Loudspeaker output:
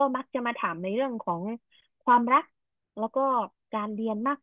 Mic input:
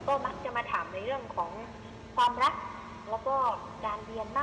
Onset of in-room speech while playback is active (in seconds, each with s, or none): none